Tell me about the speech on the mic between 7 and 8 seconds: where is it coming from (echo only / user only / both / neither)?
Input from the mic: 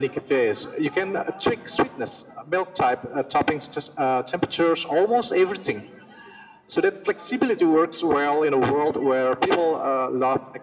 echo only